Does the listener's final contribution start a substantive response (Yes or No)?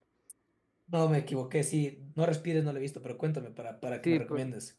Yes